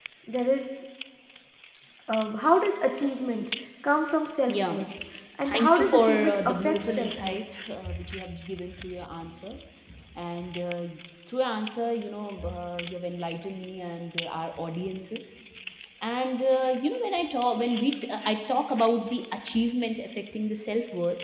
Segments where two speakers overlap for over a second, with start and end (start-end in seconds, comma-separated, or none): 5.4-7.4